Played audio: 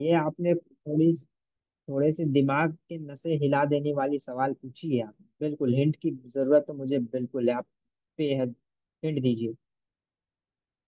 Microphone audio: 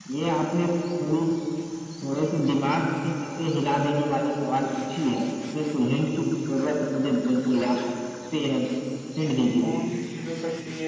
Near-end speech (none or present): present